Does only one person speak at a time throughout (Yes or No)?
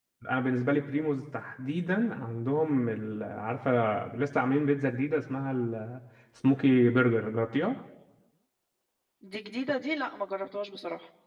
Yes